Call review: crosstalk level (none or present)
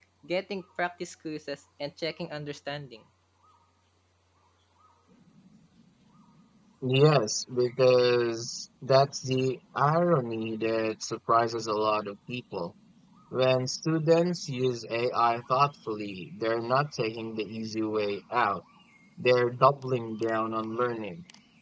none